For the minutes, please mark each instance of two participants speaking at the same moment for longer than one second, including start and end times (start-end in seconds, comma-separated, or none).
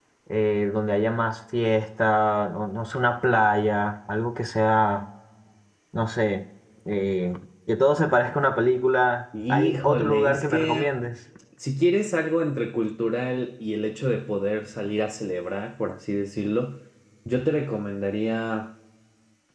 9.5-10.9